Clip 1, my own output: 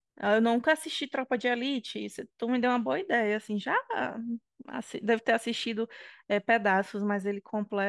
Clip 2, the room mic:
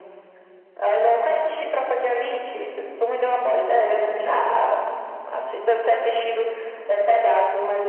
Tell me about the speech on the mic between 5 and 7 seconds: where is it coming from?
echo only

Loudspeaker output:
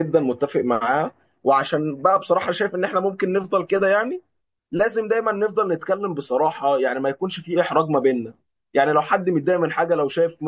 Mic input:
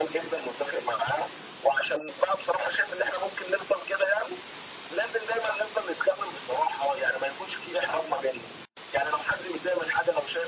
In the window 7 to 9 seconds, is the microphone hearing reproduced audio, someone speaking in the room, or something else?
echo only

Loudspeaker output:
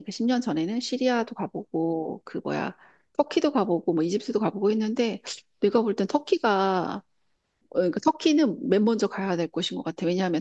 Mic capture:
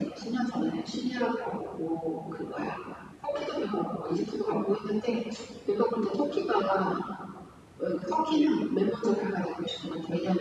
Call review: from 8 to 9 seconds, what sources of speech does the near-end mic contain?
echo only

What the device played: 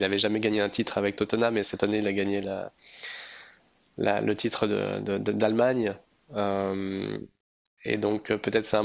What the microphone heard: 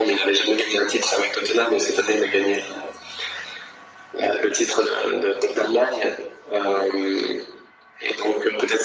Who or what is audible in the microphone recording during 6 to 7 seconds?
echo only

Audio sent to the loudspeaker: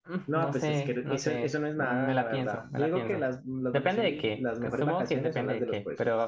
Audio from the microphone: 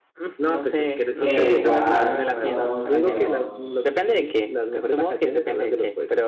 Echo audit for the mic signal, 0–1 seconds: echo only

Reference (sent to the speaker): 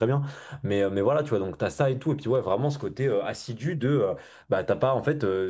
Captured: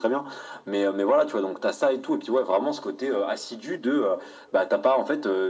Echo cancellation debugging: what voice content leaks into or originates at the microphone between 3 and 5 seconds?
echo only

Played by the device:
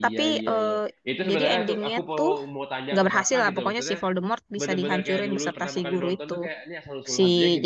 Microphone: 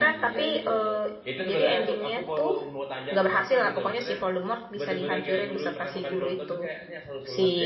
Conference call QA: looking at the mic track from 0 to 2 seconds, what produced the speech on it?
echo only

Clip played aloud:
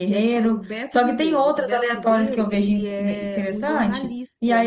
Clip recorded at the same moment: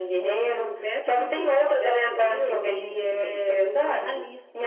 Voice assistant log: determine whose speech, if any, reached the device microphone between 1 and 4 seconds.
echo only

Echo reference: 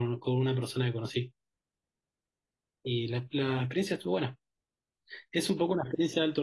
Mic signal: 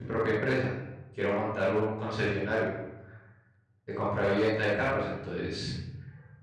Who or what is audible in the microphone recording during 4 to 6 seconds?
user only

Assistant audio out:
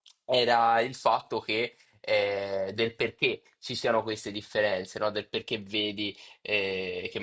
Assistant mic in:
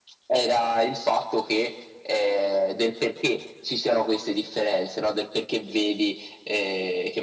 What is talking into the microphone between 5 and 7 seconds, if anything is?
echo only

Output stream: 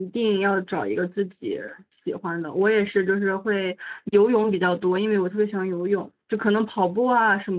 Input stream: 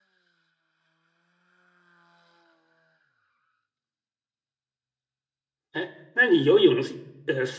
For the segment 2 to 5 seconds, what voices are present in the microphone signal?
neither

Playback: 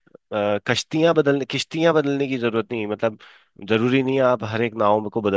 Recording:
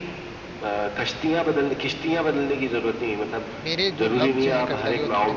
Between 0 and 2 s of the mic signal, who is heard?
echo only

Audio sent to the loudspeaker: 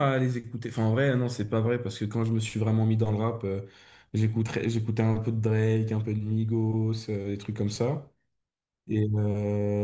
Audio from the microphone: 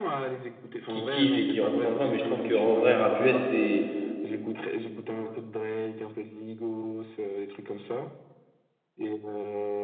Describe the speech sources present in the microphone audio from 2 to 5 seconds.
both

